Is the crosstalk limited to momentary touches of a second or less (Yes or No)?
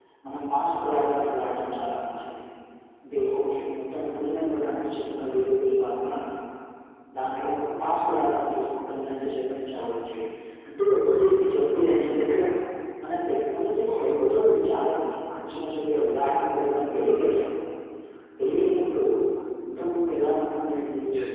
Yes